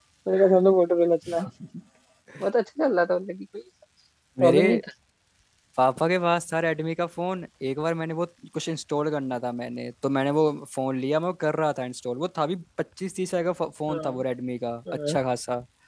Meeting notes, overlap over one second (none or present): none